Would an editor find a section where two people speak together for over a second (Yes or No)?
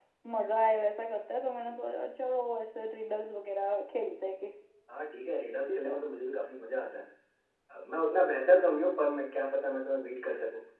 No